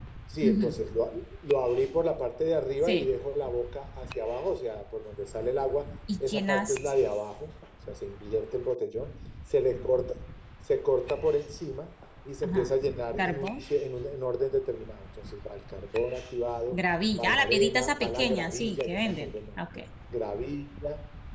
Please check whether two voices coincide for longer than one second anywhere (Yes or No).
Yes